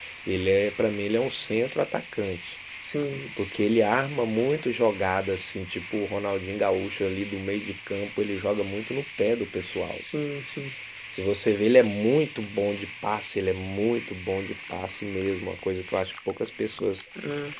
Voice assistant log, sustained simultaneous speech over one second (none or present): none